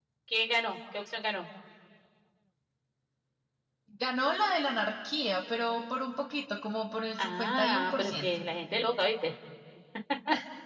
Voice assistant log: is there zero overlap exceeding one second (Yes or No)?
No